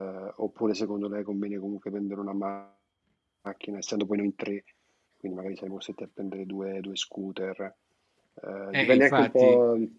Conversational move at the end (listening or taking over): listening